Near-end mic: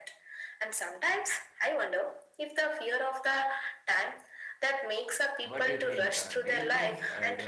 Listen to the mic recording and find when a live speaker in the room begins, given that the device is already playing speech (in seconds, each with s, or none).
5.4 s